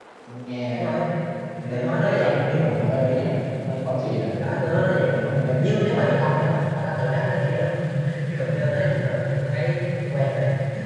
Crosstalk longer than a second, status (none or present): present